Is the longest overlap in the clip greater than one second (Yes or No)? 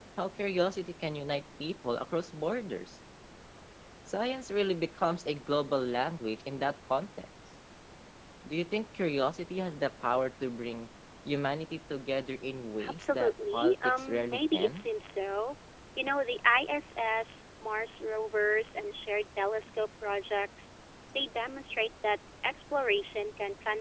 Yes